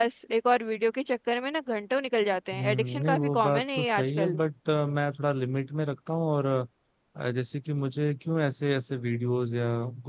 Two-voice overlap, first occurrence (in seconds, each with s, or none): 2.5 s